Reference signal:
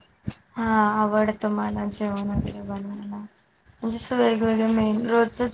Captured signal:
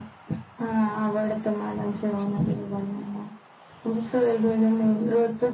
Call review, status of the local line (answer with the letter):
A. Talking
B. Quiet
B